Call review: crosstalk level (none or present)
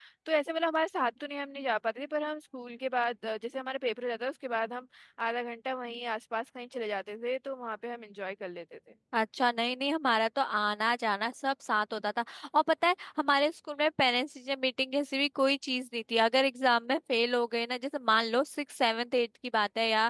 none